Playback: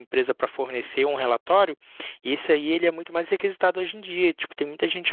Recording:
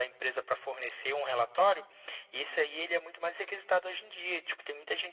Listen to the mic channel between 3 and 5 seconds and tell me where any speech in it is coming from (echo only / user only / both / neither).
echo only